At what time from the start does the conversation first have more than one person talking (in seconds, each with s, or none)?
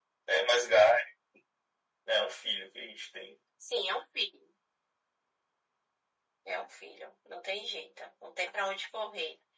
none